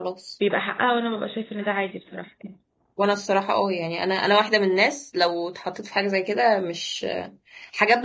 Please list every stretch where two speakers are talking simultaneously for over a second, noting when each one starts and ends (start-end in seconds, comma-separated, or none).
none